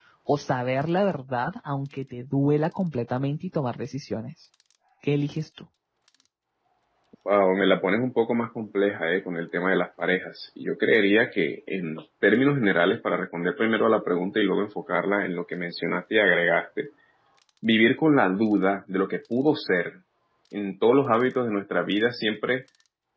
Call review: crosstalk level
none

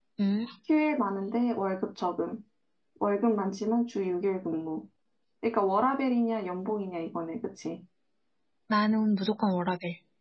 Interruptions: none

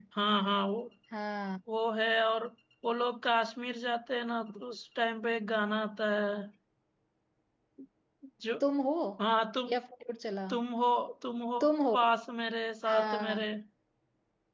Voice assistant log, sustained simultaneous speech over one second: none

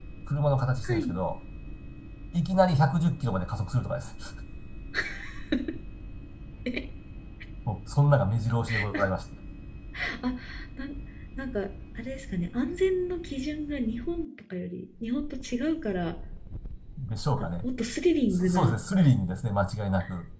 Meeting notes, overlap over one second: none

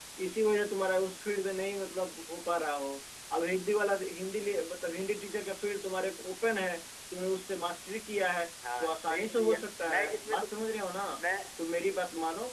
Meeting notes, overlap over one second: present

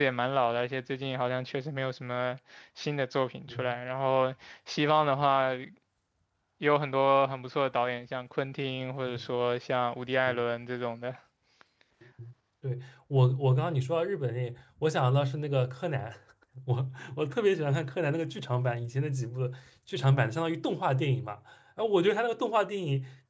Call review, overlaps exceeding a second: none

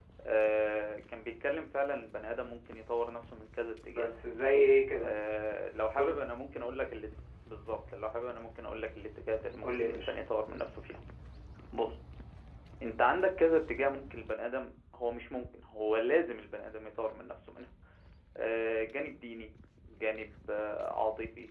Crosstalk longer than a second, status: none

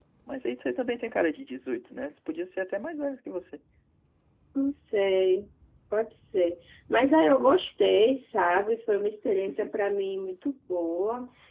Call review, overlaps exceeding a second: none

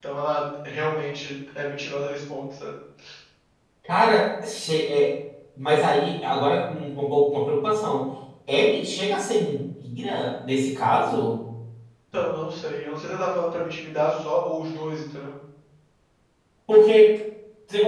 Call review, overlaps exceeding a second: none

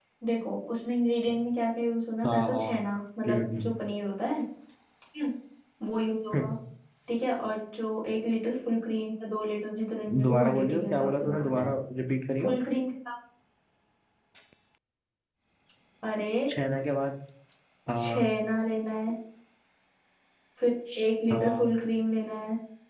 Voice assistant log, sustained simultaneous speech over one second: present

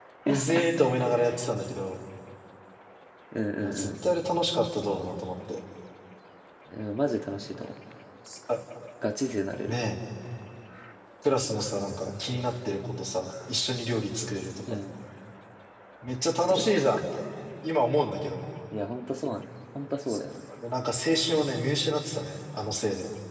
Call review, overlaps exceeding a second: none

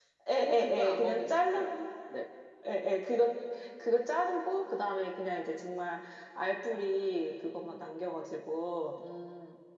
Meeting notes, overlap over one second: present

